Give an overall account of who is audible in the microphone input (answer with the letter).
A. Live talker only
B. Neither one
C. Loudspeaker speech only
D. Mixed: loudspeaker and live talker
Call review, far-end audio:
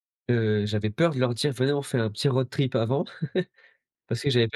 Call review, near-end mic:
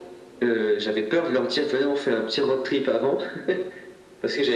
C